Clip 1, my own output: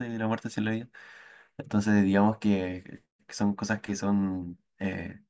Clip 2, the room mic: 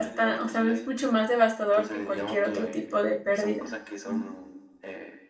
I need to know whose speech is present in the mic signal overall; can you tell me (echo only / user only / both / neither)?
both